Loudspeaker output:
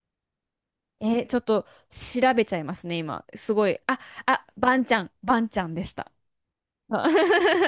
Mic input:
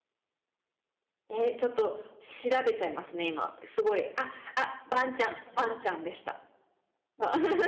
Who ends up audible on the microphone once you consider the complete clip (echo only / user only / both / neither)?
echo only